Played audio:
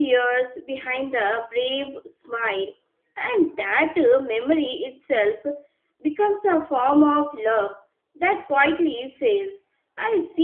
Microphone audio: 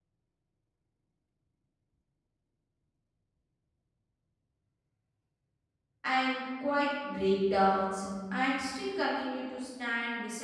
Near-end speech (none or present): present